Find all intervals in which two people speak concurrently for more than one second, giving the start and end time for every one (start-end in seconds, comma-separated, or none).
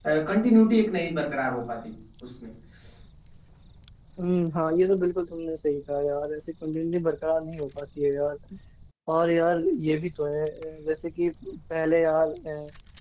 none